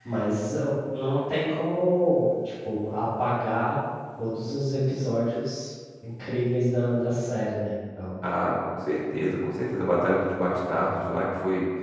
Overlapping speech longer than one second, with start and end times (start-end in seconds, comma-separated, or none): none